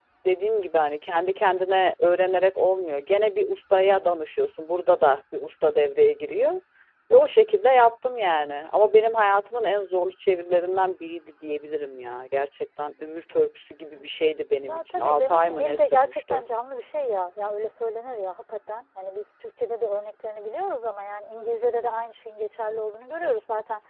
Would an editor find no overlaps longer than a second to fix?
No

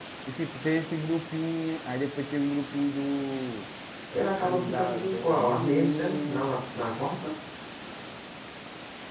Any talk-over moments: Yes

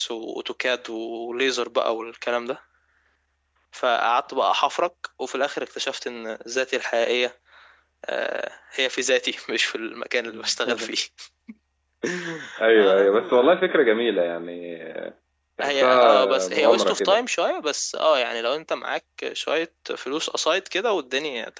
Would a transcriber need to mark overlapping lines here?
Yes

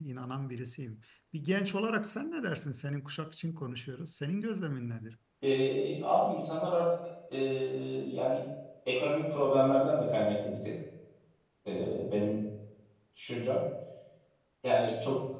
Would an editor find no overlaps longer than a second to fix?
Yes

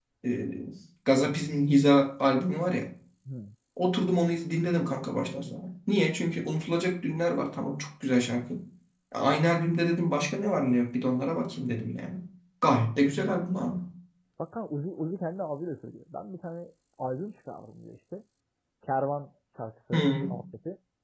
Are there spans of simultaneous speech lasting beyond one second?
No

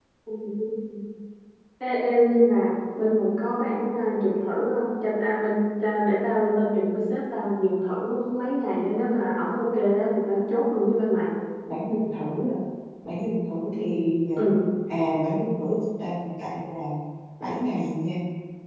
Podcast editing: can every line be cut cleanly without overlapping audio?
Yes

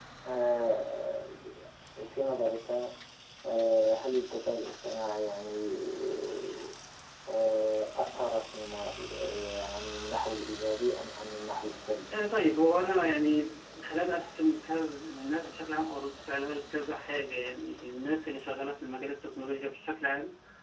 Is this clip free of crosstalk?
Yes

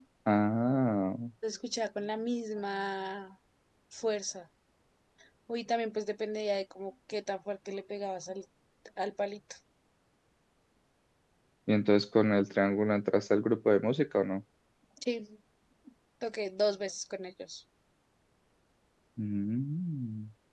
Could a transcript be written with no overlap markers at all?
Yes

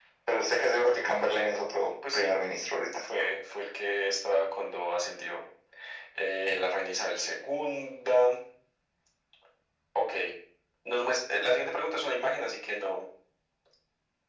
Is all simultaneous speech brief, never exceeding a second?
Yes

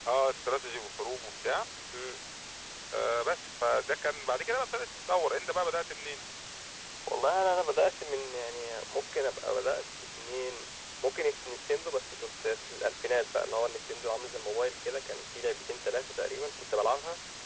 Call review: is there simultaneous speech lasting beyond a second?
No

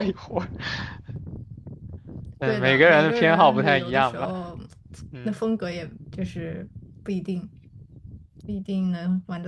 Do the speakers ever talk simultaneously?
Yes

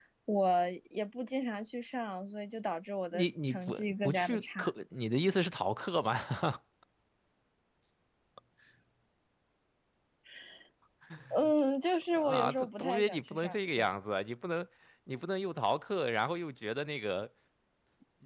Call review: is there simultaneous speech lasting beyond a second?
Yes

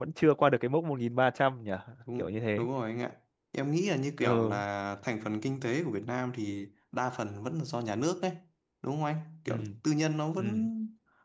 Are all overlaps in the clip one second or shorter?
Yes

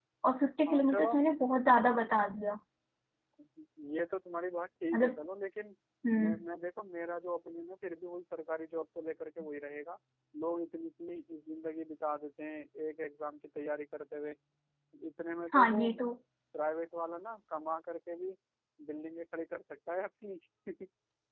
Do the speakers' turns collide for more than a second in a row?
No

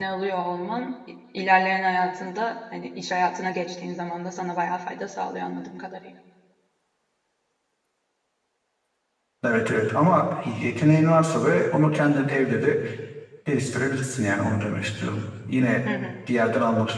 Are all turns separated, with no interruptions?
Yes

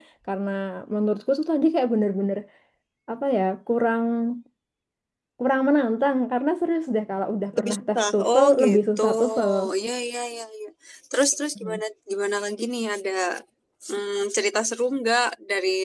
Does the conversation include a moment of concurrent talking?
Yes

